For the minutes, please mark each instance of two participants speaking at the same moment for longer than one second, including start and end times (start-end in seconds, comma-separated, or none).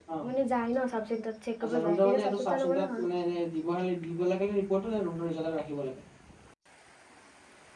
1.6-3.1